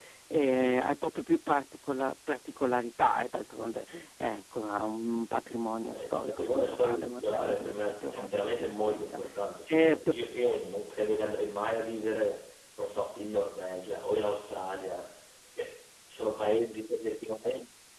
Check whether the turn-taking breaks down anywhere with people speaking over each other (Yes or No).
Yes